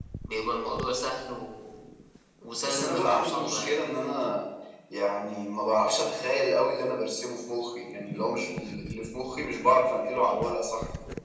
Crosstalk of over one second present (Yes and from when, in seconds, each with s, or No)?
Yes, from 2.6 s